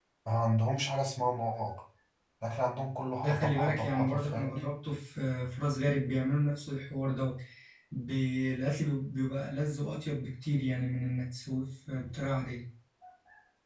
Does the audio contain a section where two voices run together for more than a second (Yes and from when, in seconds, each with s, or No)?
Yes, from 3.2 s